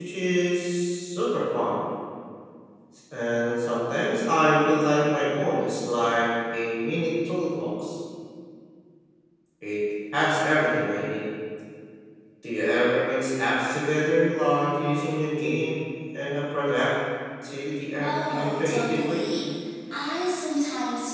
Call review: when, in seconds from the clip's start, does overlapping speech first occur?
18.0 s

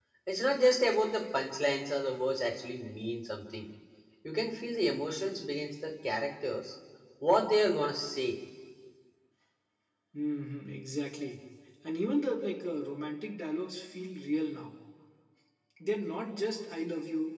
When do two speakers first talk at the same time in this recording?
none

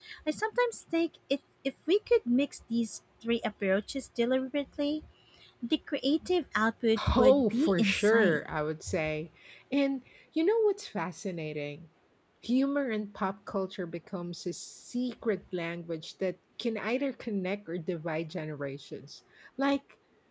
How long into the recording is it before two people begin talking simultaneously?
7.0 s

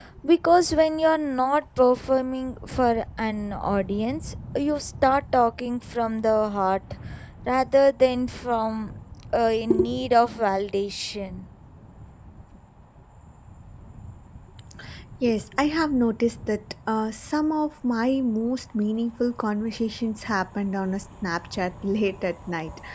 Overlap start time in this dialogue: none

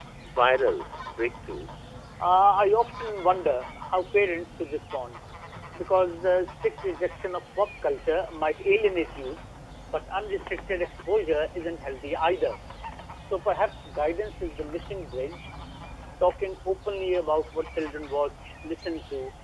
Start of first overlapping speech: none

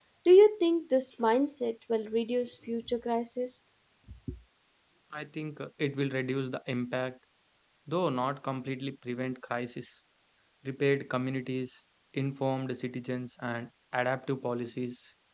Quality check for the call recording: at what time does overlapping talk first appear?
none

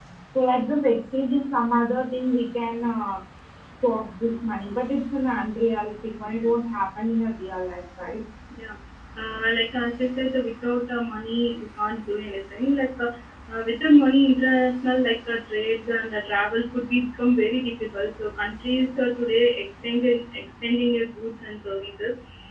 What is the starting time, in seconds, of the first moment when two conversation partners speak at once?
none

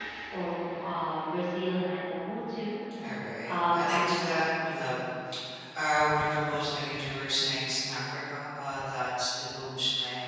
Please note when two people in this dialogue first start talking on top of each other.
3.5 s

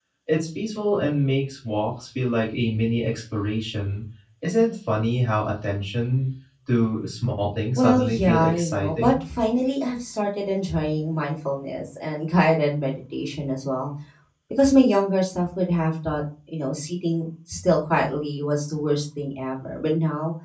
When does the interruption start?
7.8 s

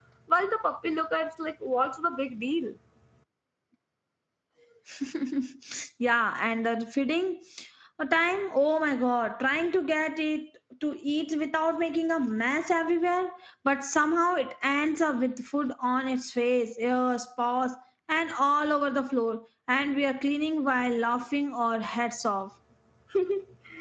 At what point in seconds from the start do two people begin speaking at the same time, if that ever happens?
none

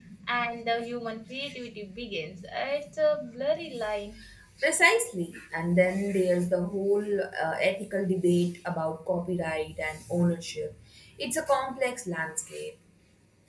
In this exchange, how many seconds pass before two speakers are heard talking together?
none

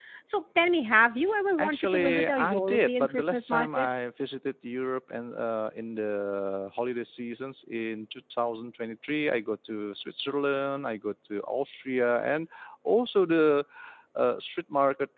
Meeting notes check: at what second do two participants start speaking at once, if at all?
1.6 s

